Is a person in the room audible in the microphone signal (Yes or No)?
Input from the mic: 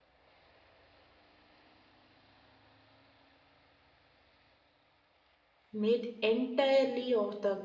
Yes